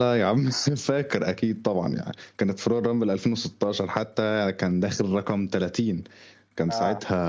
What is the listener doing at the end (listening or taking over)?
listening